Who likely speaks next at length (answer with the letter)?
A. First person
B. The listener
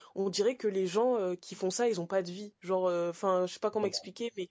A